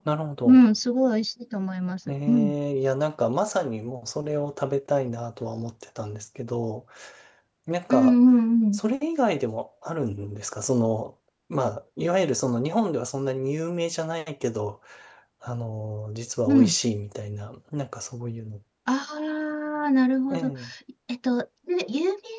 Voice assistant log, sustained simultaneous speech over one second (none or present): none